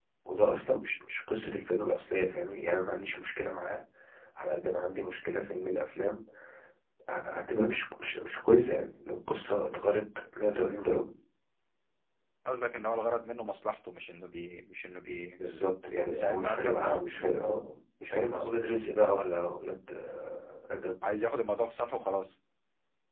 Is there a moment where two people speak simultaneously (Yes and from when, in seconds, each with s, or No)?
Yes, from 16.1 s